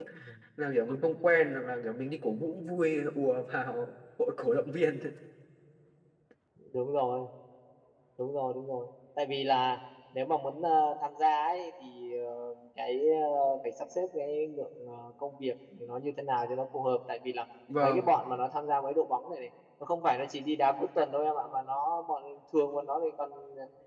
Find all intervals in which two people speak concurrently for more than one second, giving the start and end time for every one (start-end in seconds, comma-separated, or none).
none